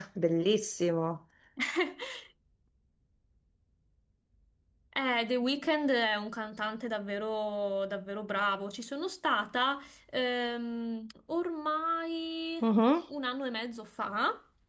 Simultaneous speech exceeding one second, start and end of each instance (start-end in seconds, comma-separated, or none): none